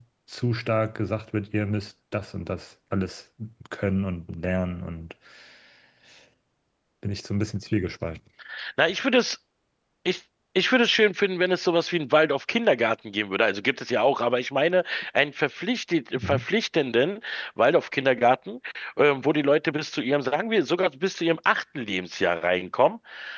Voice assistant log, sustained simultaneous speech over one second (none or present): none